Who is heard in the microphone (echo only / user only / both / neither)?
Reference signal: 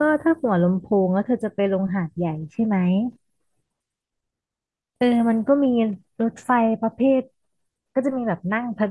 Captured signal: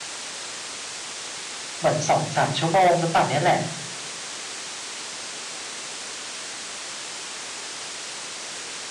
user only